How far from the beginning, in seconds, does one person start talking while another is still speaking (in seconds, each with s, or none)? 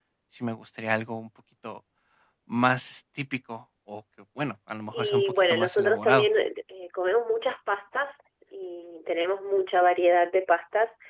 4.9 s